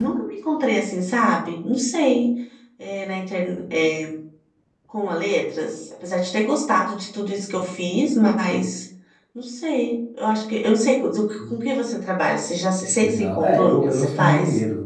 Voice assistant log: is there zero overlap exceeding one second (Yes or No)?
No